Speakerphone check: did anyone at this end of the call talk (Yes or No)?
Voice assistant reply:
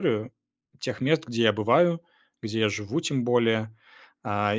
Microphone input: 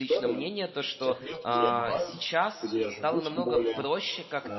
Yes